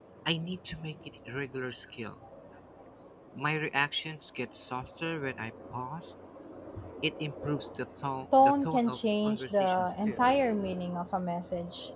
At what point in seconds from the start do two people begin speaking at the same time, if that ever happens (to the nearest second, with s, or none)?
8 s